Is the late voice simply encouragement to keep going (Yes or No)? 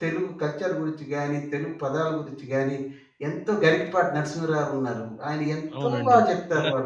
No